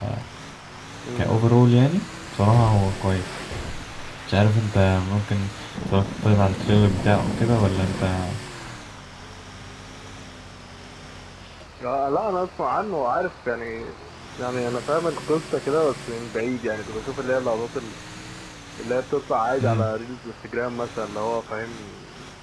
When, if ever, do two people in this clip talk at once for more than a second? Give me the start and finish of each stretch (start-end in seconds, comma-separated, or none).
none